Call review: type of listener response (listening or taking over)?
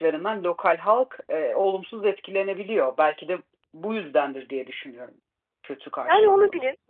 taking over